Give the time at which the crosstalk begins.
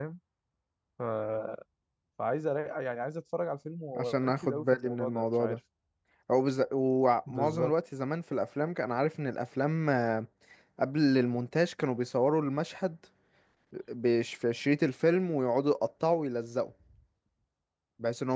4.0 s

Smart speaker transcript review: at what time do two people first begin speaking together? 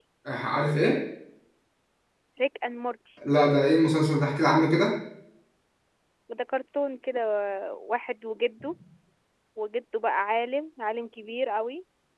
none

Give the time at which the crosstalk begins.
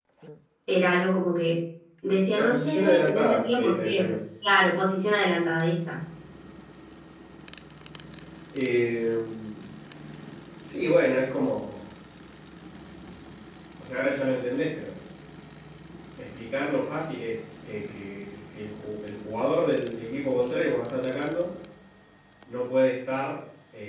2.2 s

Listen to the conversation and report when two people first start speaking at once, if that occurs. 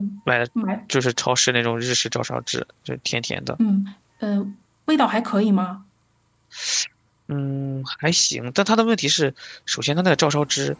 none

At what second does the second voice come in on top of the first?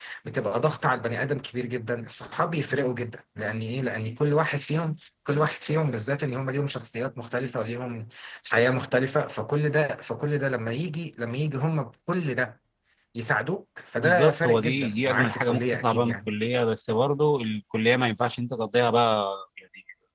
14.0 s

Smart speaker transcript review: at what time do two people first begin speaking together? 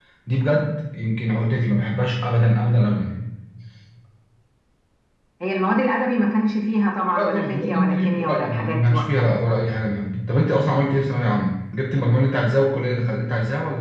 7.2 s

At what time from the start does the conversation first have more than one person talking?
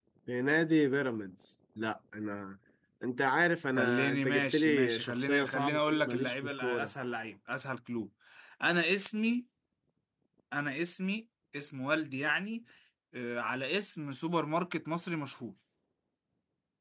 3.8 s

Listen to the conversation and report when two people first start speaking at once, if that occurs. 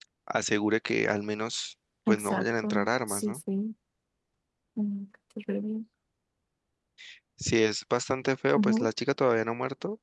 2.1 s

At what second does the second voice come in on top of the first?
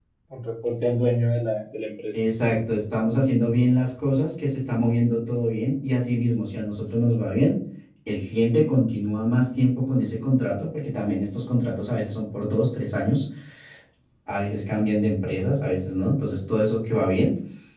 none

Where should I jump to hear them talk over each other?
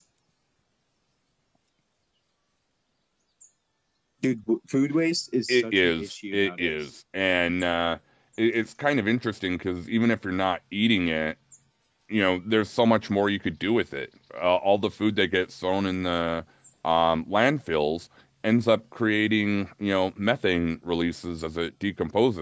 5.5 s

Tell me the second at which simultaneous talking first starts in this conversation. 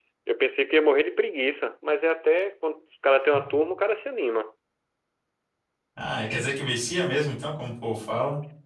none

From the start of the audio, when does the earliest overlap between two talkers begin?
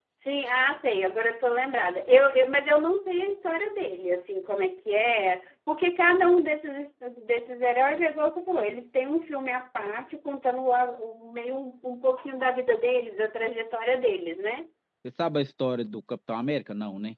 none

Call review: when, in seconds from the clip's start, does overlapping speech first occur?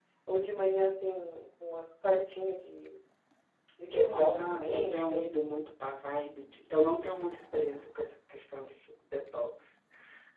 3.9 s

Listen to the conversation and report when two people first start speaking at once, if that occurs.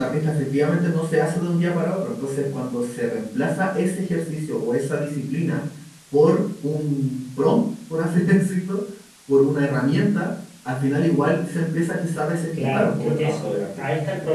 12.5 s

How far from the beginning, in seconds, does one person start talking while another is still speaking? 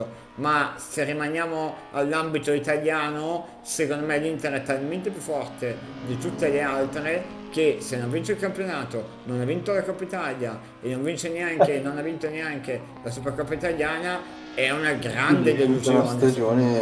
15.3 s

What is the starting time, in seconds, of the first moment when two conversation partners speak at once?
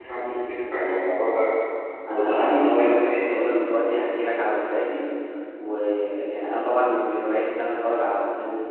2.1 s

